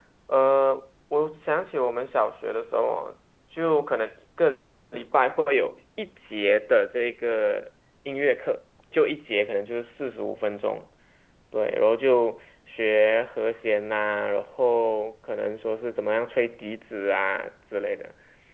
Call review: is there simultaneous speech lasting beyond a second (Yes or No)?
No